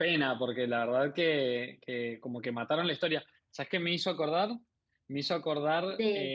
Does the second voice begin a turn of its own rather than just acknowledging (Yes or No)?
No